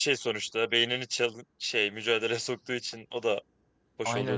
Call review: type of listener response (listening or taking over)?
taking over